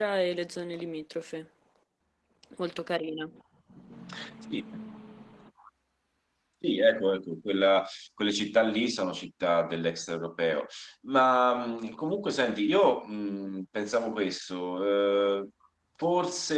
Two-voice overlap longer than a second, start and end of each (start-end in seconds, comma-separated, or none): none